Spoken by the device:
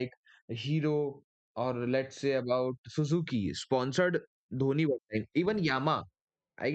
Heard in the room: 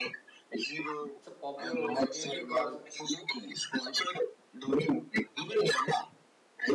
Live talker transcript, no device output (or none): it's a popular one every car